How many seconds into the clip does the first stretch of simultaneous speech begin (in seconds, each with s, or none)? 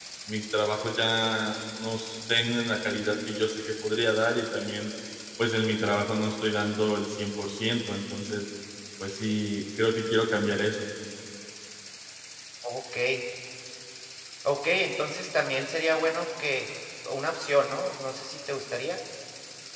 none